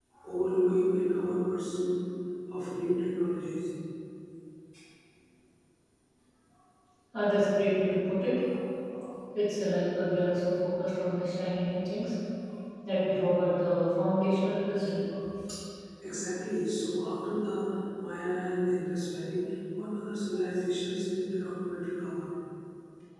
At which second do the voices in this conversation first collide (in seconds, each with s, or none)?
none